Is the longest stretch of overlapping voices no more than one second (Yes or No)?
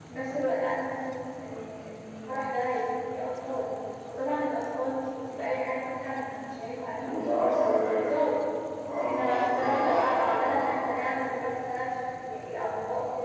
No